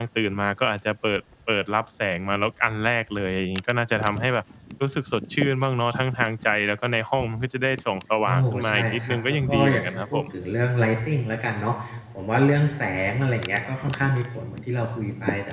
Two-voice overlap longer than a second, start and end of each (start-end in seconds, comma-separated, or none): 8.2-10.3